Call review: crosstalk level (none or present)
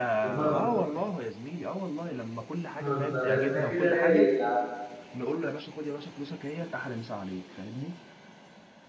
present